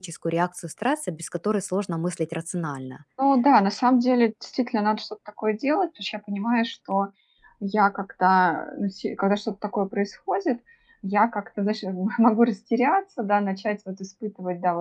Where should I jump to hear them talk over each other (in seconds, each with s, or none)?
none